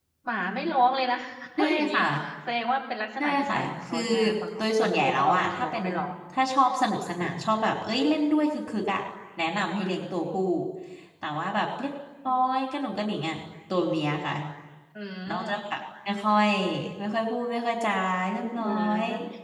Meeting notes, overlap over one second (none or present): present